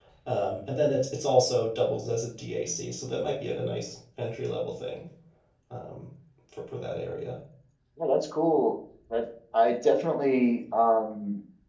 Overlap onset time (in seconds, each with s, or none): none